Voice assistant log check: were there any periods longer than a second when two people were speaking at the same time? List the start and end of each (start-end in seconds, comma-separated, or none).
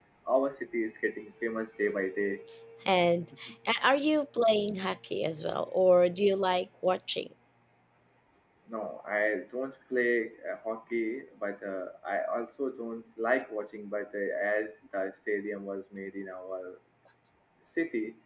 none